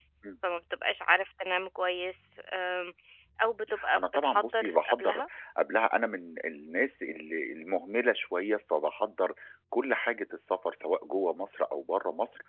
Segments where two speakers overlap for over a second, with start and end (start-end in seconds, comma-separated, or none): 3.9-5.2